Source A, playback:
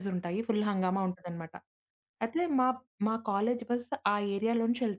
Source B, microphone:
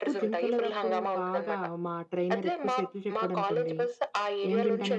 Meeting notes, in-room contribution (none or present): present